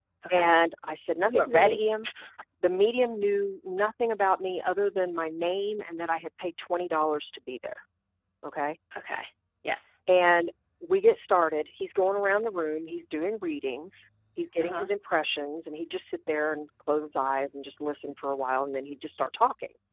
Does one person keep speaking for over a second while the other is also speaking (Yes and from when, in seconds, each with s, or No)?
No